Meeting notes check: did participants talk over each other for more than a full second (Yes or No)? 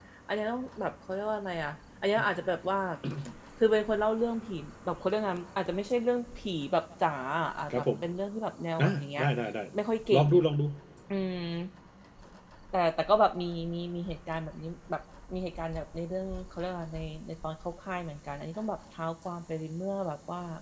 No